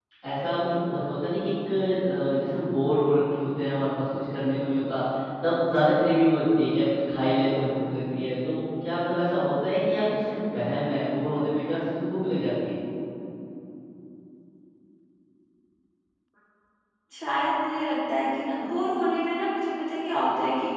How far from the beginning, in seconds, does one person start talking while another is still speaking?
none

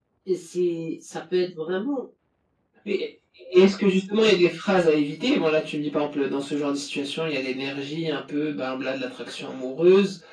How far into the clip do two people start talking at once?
none

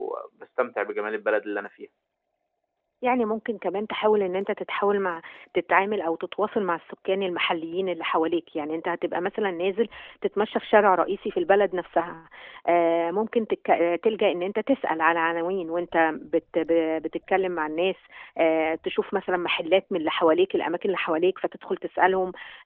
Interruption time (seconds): none

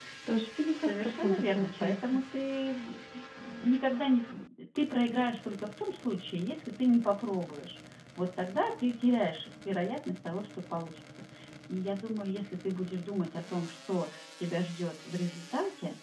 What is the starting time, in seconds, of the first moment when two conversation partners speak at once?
0.7 s

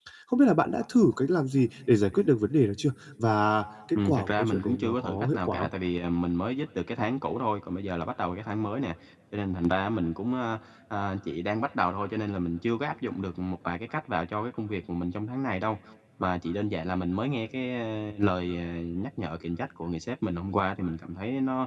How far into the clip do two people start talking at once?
4.0 s

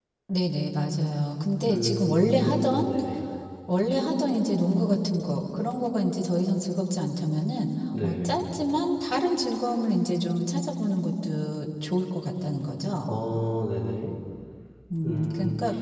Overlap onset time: 1.6 s

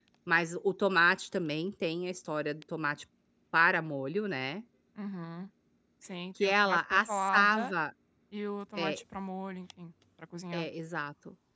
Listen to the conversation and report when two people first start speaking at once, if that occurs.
6.4 s

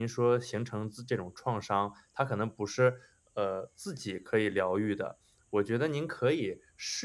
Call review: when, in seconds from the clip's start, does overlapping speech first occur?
none

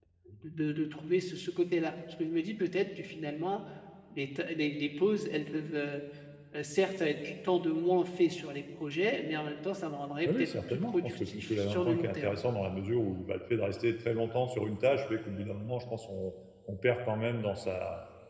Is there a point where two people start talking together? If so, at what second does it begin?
10.2 s

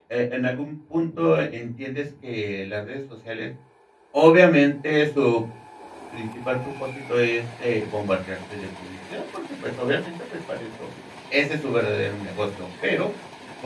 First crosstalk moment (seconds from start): none

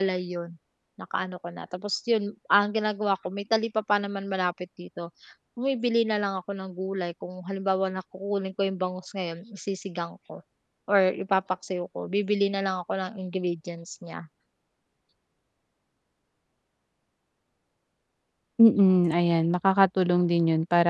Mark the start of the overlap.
none

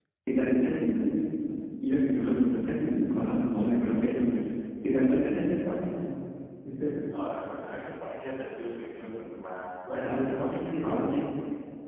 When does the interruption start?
9.9 s

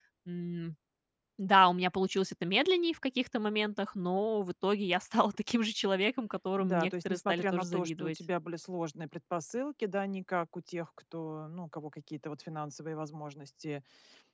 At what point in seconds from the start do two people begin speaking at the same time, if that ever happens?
6.6 s

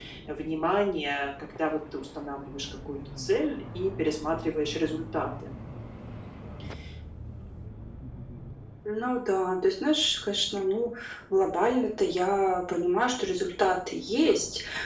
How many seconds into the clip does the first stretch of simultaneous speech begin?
none

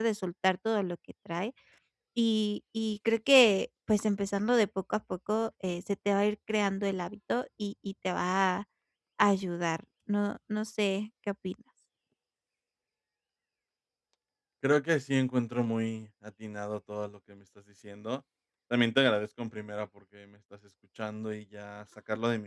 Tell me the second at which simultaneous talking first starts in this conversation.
none

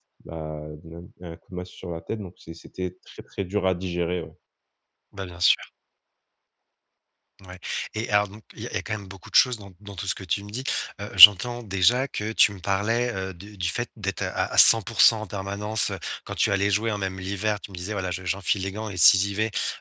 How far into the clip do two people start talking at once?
none

